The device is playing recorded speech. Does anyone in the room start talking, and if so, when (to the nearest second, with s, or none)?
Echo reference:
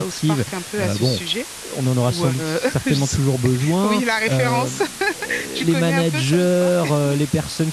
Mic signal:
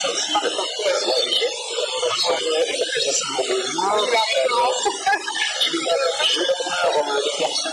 none